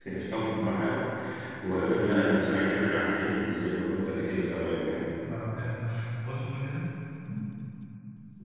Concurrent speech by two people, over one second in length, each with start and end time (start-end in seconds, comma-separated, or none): none